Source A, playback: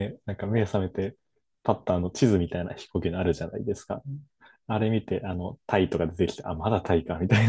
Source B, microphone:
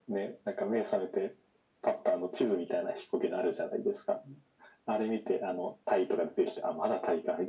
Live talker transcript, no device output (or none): none